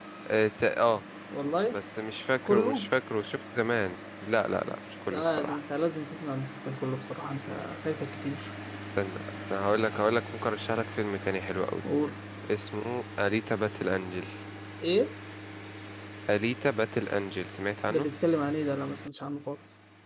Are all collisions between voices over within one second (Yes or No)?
Yes